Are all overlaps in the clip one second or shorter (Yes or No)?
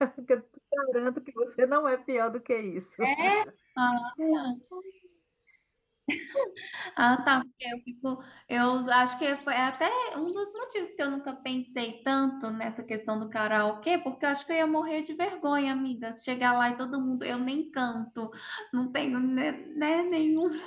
Yes